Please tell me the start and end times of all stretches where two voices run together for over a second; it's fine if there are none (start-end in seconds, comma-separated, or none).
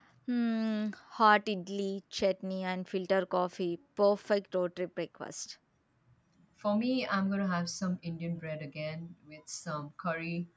none